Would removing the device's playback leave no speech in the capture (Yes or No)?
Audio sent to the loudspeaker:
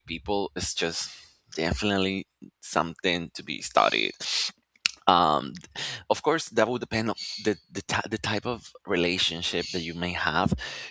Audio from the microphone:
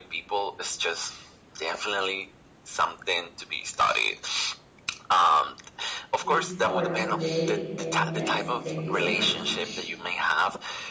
No